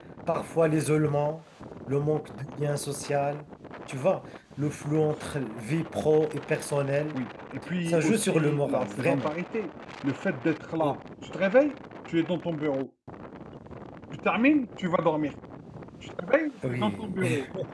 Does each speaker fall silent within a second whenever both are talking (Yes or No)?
No